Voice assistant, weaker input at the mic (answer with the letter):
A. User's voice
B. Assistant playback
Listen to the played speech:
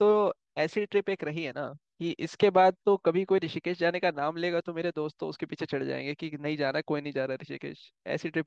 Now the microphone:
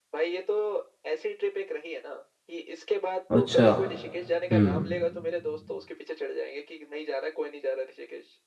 B